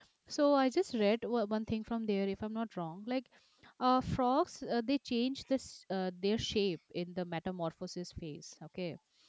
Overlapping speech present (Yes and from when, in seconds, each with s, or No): No